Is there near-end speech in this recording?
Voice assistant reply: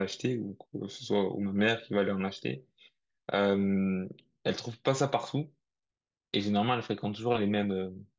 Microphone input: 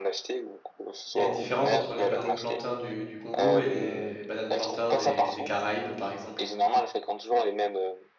Yes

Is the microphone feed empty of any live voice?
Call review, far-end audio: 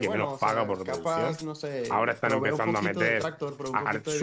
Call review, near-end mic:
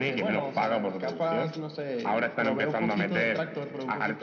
Yes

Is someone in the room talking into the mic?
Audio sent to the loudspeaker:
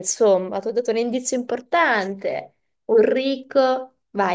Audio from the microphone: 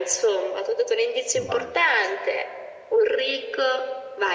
Yes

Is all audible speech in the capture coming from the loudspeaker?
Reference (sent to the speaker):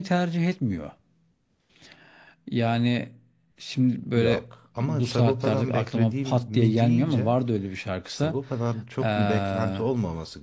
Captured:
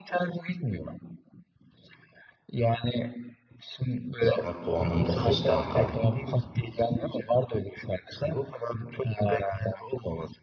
No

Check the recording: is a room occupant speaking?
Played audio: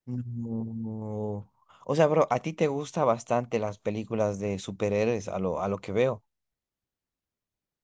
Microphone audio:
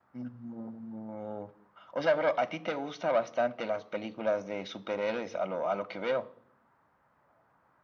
No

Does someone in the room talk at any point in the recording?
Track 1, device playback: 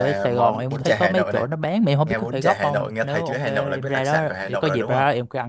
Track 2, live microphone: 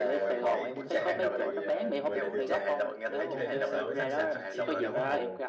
Yes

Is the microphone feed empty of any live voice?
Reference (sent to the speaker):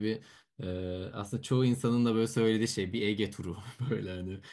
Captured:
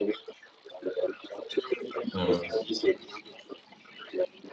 No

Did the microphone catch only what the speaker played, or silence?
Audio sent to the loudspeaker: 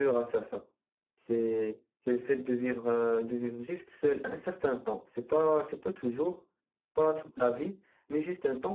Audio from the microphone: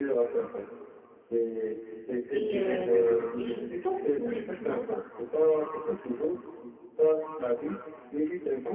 No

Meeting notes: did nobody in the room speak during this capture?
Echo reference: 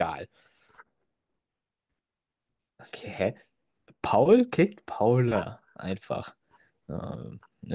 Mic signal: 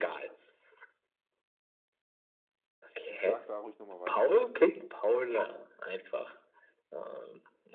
No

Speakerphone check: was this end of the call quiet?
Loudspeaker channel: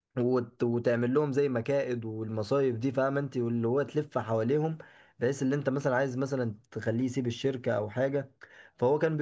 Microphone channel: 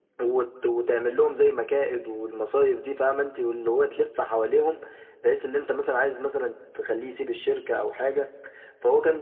Yes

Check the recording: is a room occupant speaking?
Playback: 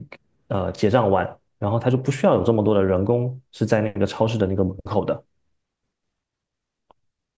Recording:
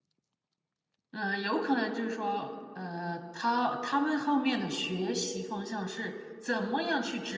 Yes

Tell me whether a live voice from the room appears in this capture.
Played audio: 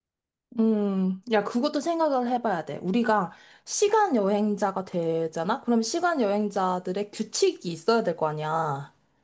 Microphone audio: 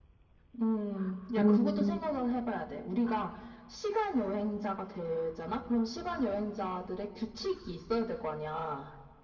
Yes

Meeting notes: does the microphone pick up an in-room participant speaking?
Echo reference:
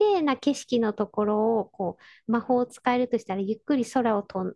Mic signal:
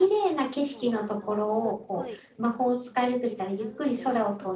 Yes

